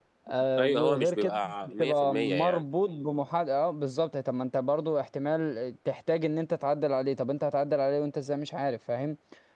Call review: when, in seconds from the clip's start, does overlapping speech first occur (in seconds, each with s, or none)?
0.6 s